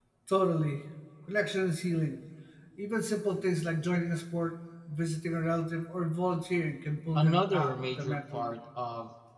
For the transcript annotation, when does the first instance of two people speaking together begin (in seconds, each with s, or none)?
7.2 s